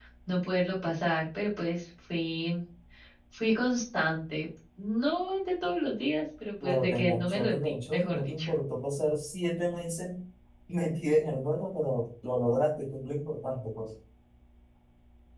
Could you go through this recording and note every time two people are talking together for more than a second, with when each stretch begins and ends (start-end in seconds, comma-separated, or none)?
6.6-8.5